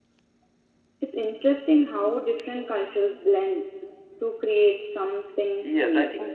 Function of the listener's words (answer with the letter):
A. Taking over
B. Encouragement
A